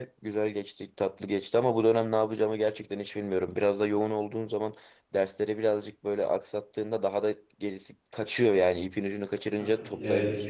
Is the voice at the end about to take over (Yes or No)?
Yes